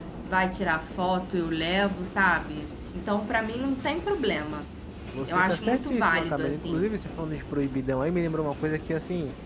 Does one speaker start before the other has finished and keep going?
Yes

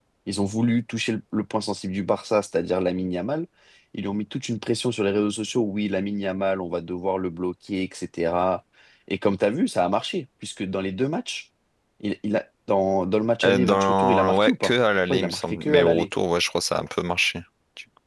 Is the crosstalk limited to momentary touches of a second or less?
No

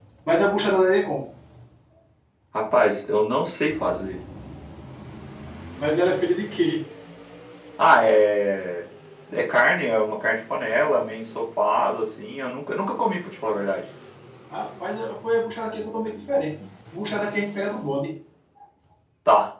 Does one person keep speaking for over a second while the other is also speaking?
No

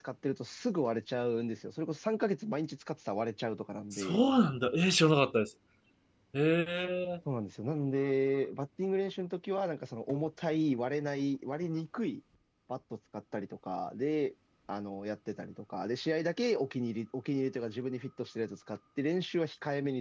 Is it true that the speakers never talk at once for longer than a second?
Yes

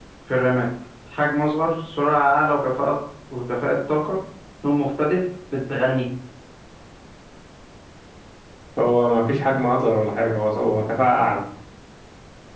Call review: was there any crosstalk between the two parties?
No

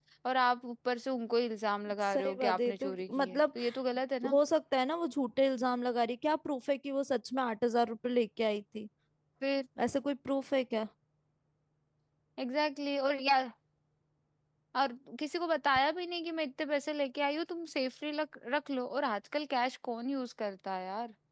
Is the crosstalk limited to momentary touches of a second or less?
No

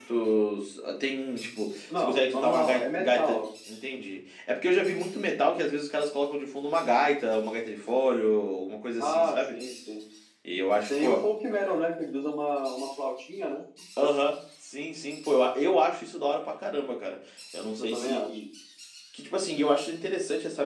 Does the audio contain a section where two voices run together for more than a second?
Yes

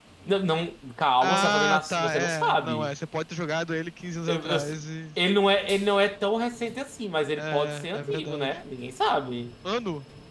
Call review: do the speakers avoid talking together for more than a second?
No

